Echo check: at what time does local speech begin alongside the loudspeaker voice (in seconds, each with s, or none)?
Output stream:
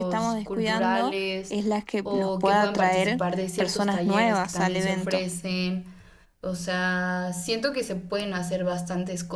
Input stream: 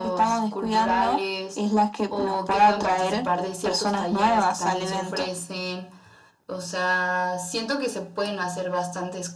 none